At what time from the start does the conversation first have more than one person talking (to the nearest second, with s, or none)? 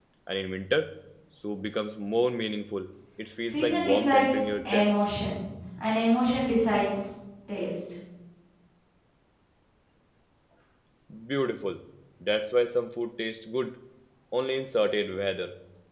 3 s